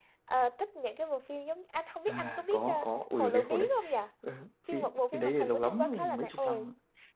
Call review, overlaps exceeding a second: present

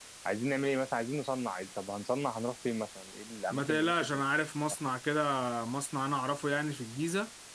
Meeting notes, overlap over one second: none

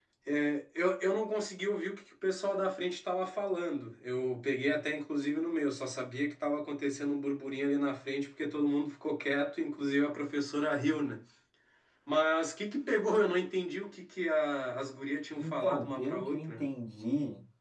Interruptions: present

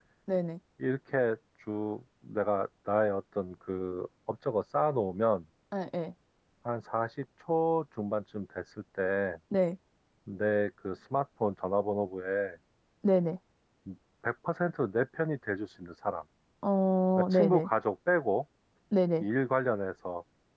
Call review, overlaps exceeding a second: none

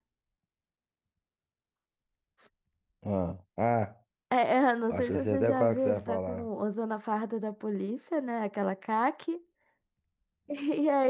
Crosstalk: present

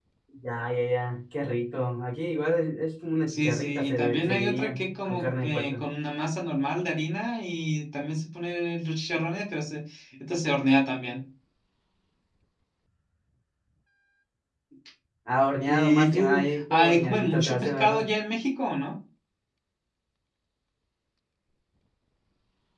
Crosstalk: present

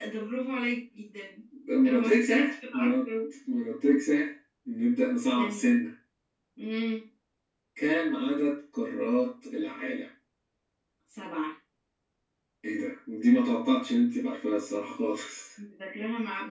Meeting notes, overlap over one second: present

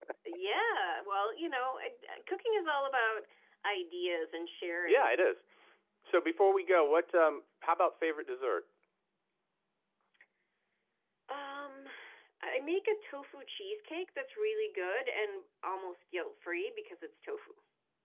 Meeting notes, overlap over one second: none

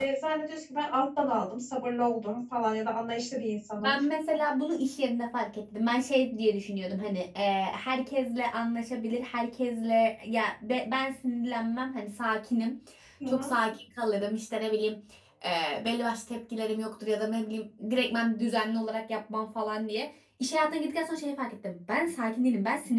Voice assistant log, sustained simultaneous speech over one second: none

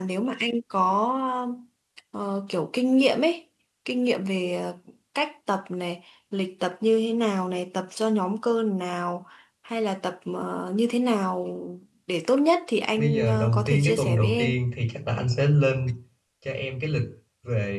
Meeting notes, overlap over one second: present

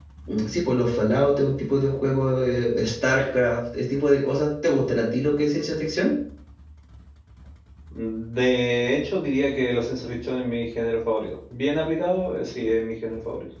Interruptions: none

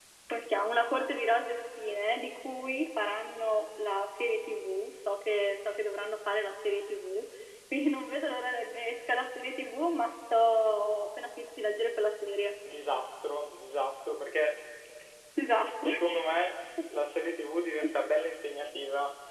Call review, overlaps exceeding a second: none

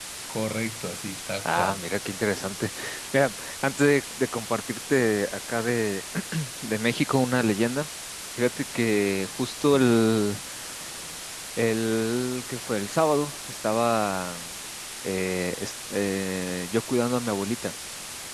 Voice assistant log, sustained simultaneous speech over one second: none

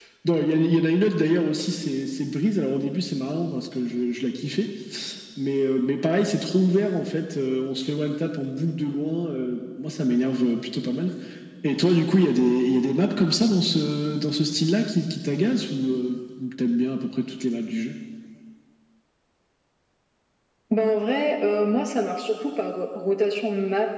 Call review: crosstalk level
none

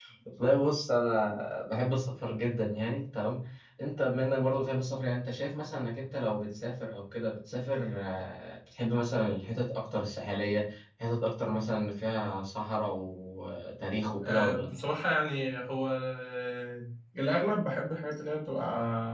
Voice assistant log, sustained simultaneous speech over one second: none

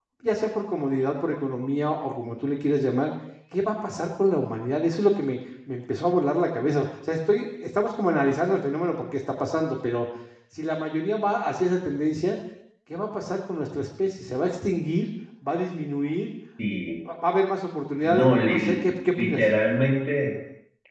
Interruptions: present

